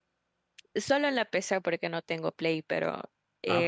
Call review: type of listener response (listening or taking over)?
taking over